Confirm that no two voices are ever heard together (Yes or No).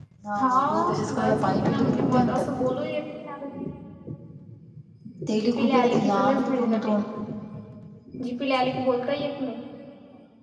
No